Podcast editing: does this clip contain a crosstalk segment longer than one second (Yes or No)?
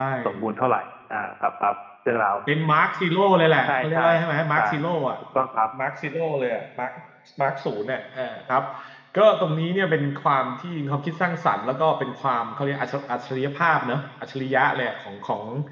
No